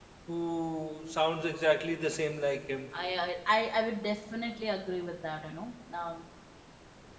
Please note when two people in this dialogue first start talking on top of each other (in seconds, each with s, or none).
none